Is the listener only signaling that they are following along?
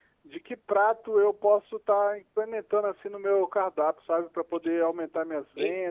No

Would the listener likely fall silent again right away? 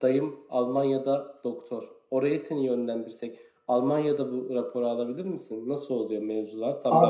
No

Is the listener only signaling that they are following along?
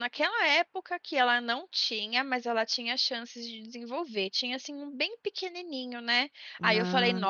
Yes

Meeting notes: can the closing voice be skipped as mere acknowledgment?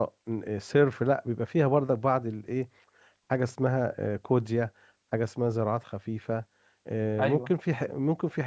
Yes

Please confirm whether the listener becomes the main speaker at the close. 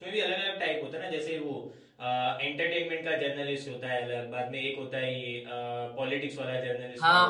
Yes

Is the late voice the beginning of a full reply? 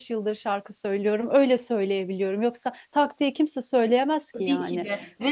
Yes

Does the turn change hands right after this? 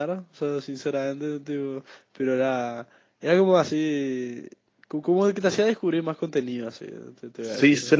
Yes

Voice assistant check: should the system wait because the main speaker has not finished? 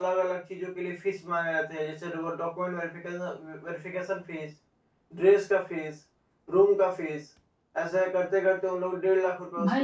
No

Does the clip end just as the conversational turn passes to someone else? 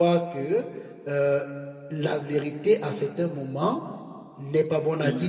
No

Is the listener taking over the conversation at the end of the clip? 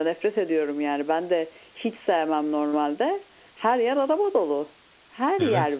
Yes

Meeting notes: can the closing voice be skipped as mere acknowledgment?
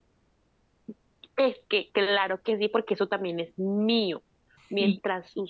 Yes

